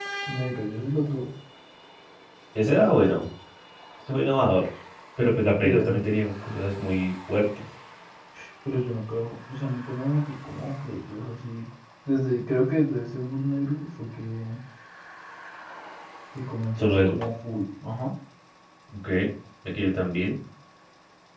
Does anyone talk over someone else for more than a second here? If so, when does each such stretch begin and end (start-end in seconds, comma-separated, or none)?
none